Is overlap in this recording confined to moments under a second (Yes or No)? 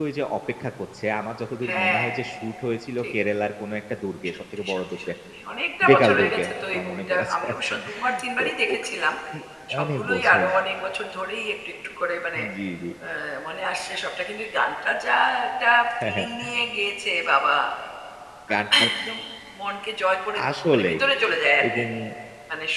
No